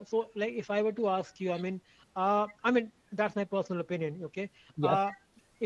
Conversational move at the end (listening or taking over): listening